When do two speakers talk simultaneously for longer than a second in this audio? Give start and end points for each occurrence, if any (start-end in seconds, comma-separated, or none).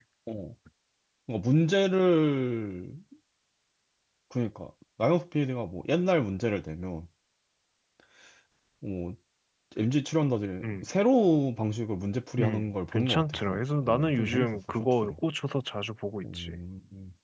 12.4-15.1